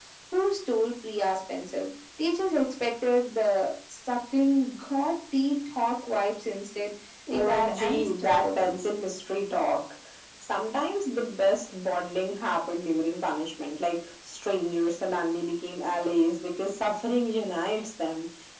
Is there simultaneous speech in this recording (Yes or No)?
Yes